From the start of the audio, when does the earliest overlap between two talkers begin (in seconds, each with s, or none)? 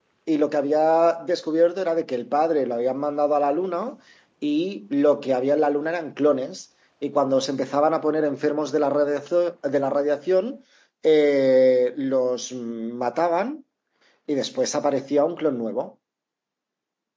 none